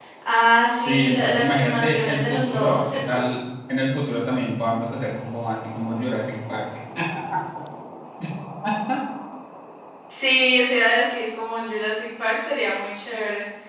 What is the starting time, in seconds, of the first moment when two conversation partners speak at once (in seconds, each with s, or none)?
0.8 s